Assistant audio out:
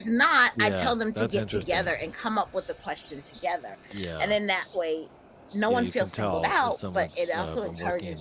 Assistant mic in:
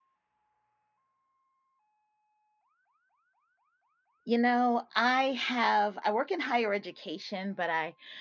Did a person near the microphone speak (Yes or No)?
Yes